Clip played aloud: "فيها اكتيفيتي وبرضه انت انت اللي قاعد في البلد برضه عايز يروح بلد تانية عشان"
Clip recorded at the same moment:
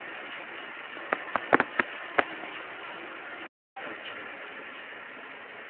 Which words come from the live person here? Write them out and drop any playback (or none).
none